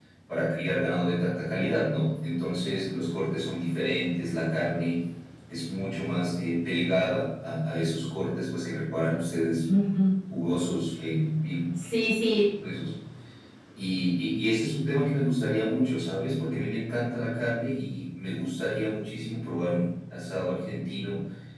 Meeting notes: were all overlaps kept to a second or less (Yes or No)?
Yes